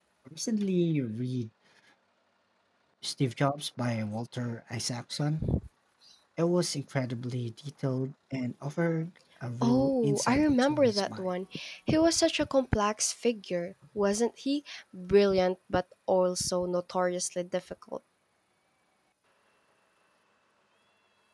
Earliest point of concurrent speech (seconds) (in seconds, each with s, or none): 9.6 s